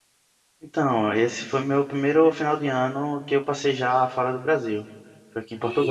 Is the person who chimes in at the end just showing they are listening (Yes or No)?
No